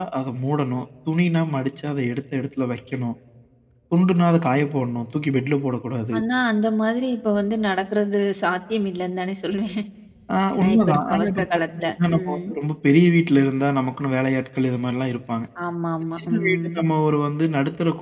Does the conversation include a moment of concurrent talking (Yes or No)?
Yes